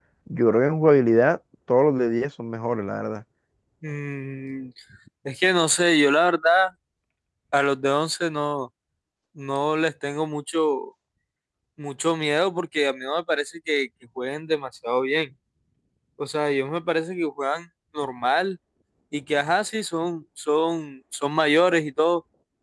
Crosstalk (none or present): none